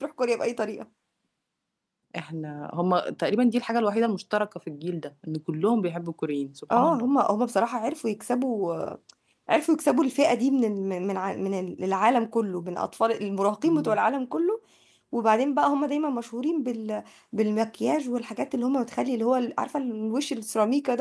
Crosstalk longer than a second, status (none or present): none